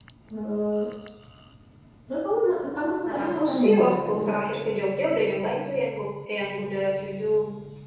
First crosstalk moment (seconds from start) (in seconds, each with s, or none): 3.0 s